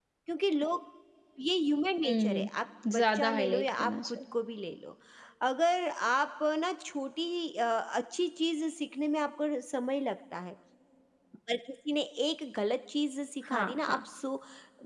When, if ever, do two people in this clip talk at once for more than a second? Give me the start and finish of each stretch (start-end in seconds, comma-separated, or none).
2.9-4.2